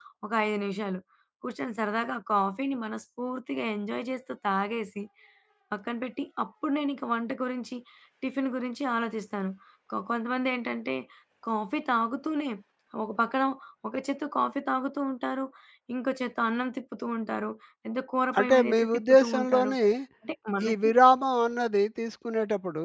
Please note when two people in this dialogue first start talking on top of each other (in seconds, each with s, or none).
18.4 s